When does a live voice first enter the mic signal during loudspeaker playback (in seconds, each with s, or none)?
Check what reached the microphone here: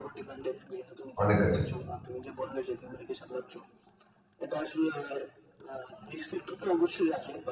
1.2 s